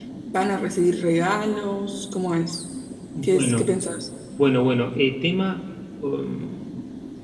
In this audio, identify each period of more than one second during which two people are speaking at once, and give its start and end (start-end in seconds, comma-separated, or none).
none